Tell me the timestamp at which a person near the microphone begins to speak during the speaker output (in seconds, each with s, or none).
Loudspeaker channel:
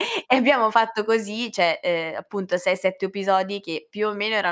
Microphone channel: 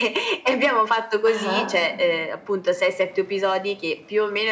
1.3 s